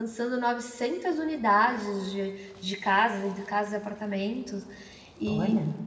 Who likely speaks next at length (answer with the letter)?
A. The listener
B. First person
B